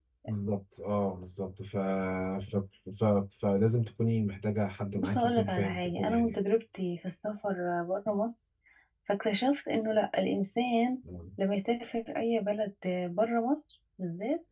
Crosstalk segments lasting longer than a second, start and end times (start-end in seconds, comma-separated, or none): 5.0-6.4